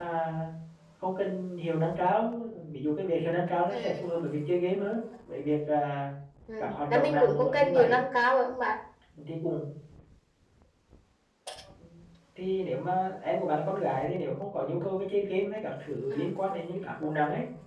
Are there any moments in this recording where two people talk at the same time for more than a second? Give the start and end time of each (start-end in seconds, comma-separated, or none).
6.6-8.0